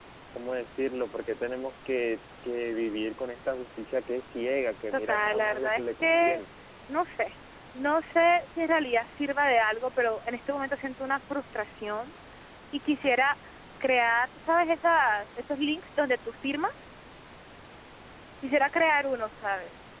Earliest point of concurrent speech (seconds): 4.9 s

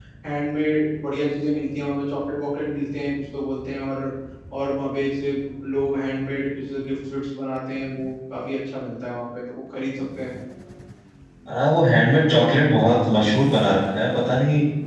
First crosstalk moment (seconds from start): none

